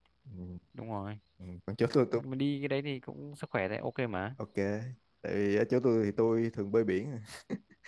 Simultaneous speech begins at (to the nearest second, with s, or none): none